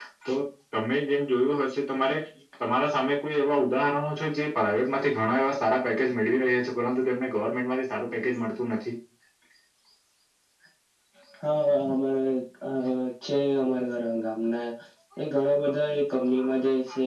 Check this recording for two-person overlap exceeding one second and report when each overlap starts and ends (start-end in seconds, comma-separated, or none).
none